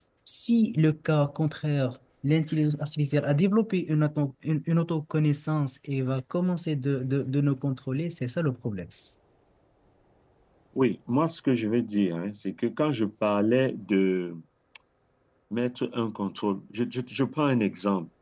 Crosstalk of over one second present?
No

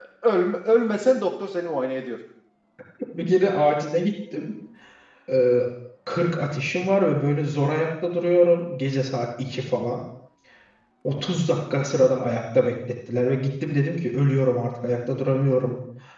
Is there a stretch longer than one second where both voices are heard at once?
No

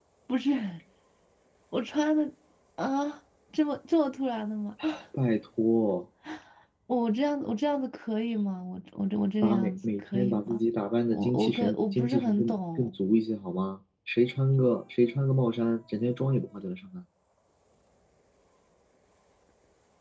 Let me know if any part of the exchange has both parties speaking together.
Yes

